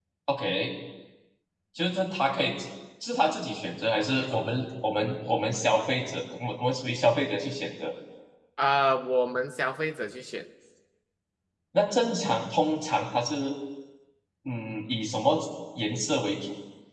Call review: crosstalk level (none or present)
none